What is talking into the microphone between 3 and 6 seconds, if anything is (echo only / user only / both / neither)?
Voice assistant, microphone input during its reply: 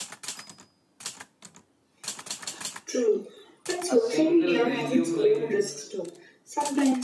both